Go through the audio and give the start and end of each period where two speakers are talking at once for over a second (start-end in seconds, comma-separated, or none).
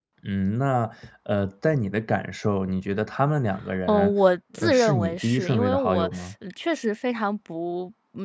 4.6-6.1